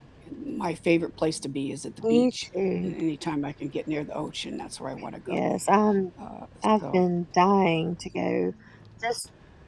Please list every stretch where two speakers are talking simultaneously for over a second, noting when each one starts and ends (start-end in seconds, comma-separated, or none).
none